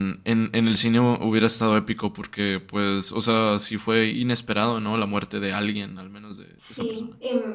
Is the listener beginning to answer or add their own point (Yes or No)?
Yes